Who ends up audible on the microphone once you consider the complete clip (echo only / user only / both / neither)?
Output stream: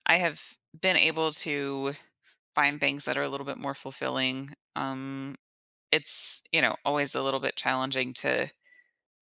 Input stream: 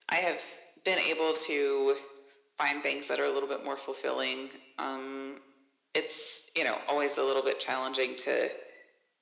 echo only